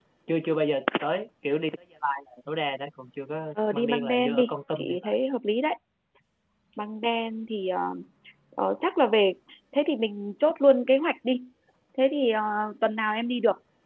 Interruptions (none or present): present